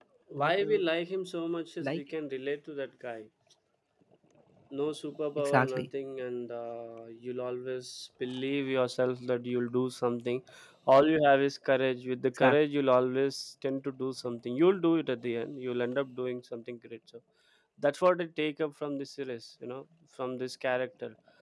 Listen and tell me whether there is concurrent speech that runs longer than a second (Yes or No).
No